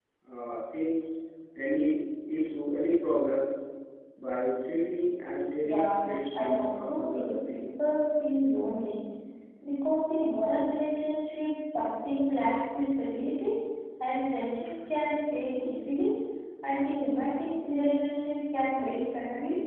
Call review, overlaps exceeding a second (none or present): present